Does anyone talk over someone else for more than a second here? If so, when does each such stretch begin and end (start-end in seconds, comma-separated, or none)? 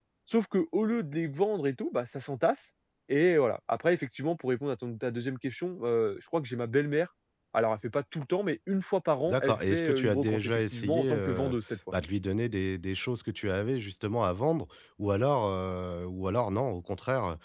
9.3-11.5